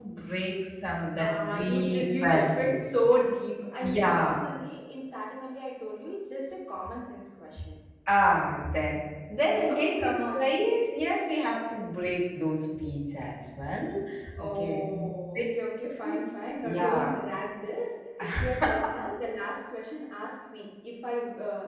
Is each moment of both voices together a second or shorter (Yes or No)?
No